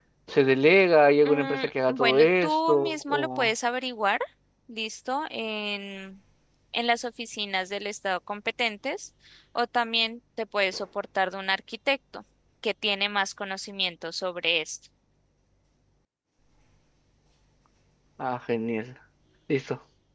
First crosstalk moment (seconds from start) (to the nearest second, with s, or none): 1 s